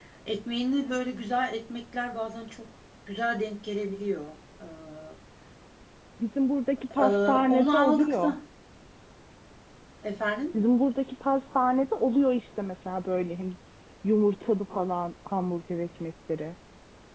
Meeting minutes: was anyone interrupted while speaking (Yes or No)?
Yes